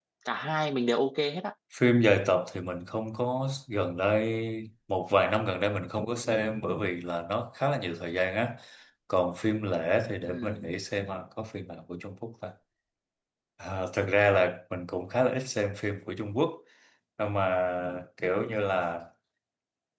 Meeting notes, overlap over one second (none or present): none